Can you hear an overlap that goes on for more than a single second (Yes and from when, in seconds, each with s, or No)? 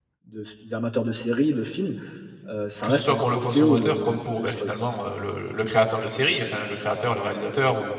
Yes, from 2.8 s